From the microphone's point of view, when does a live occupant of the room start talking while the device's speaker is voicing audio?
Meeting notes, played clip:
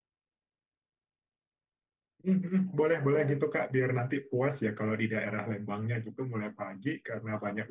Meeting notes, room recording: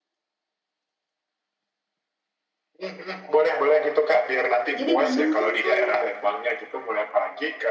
4.8 s

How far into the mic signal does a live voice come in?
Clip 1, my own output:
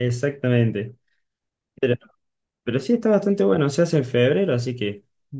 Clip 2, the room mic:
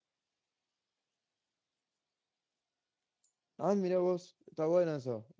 3.6 s

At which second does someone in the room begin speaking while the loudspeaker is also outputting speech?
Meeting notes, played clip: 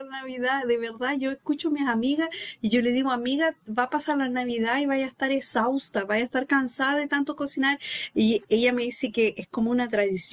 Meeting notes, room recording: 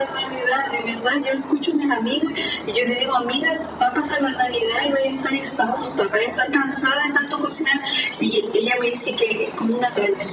none

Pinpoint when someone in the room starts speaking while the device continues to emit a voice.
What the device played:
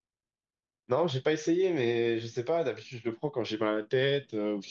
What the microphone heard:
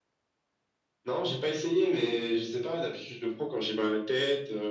none

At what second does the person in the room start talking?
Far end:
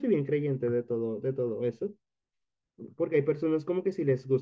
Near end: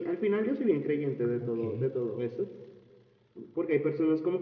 1.4 s

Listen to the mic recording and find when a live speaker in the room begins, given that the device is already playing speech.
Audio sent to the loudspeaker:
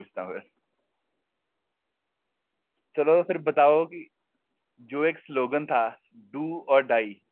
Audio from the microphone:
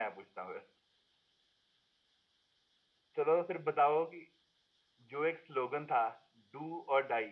none

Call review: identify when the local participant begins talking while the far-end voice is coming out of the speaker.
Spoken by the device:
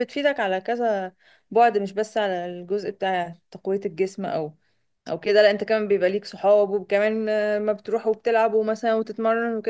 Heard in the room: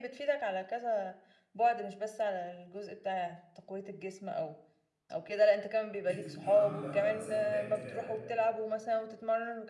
6.0 s

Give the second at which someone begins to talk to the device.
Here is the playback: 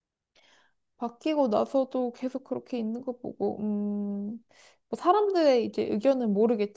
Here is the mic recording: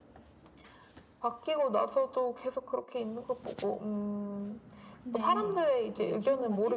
4.9 s

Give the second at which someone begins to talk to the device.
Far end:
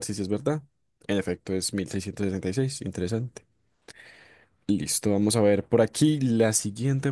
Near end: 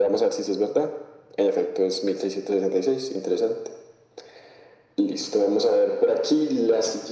none

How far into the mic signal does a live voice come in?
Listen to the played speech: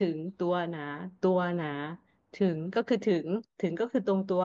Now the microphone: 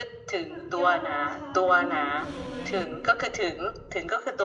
0.5 s

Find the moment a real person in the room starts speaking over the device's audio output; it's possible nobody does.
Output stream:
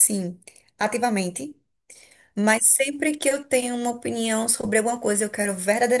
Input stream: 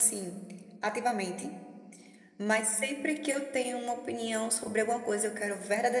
none

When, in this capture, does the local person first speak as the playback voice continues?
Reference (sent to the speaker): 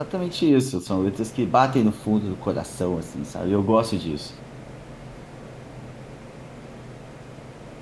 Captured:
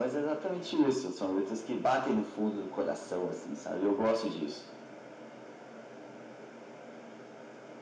none

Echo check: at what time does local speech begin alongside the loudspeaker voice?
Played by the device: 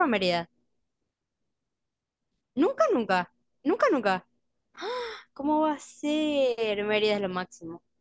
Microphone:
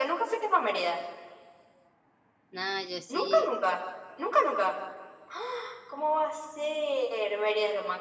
2.5 s

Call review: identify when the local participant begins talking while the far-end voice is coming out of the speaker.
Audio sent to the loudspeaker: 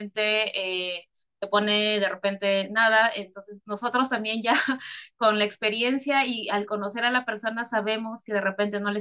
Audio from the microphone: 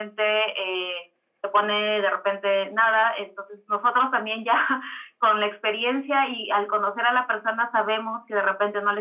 none

